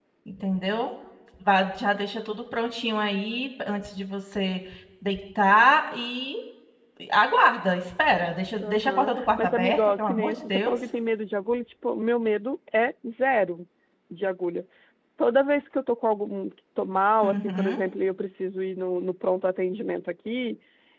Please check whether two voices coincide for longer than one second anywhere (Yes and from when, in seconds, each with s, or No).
Yes, from 8.6 s